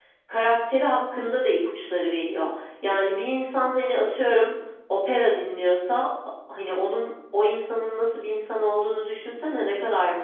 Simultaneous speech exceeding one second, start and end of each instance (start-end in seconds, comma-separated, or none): none